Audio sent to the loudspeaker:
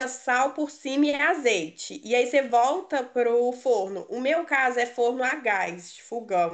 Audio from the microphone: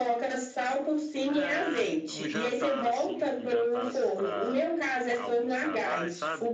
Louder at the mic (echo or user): echo